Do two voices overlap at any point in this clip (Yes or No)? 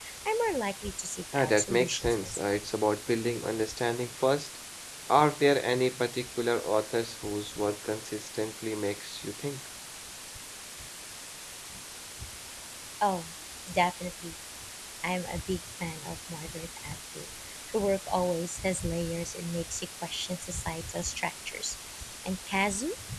Yes